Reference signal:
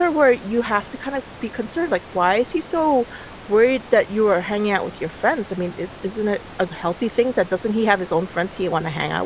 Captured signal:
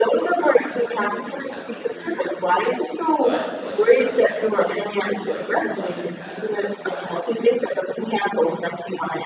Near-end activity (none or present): present